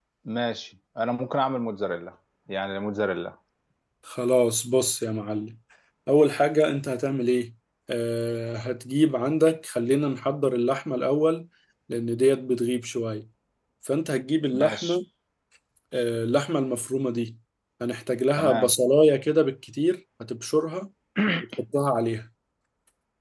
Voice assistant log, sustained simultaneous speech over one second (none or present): none